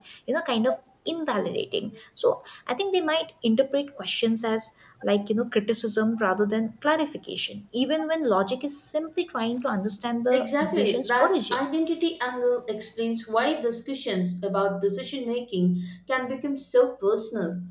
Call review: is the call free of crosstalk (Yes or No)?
No